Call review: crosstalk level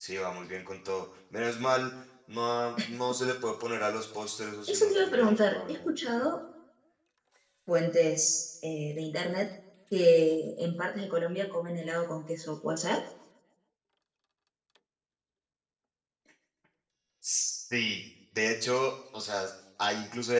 present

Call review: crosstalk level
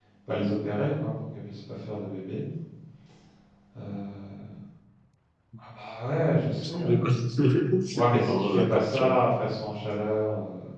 present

